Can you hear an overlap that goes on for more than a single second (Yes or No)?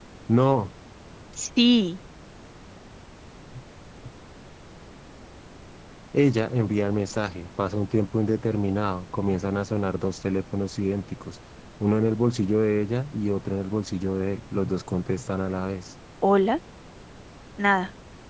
No